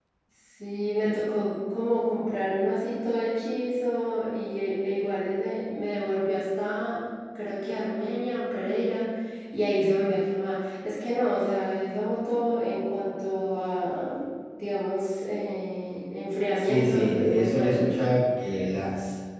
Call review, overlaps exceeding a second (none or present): present